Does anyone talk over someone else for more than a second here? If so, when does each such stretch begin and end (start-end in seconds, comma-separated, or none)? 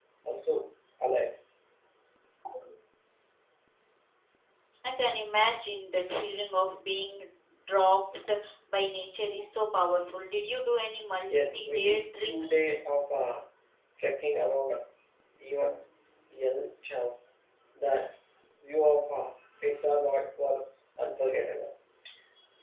11.3-12.7